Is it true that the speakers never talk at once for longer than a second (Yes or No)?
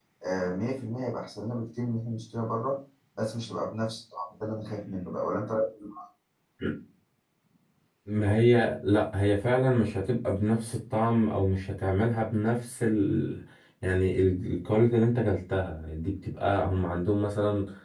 Yes